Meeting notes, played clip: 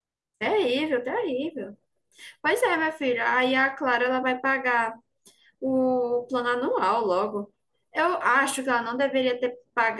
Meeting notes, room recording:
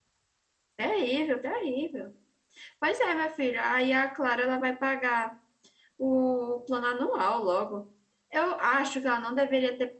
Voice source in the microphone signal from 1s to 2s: echo only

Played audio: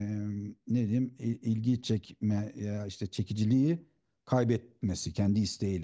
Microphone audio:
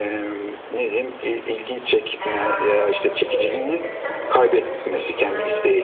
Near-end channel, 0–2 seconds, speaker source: echo only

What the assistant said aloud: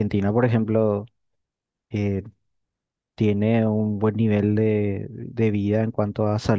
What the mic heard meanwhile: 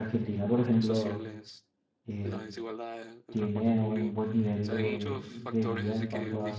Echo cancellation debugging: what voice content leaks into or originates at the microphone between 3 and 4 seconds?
both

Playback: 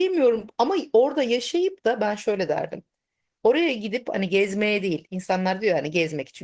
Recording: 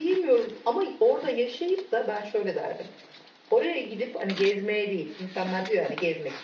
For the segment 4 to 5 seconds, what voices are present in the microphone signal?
echo only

